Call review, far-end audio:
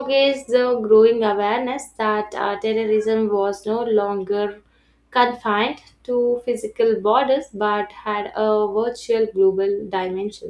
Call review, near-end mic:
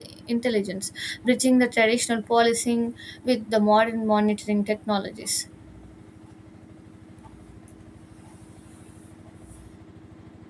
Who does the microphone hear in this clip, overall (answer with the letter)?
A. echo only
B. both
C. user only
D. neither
C